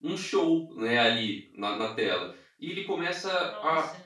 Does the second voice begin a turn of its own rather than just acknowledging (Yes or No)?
No